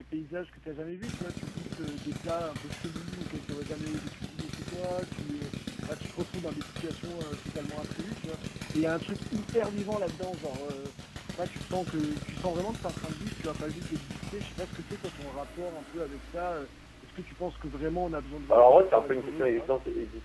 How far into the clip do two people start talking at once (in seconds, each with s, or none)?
18.5 s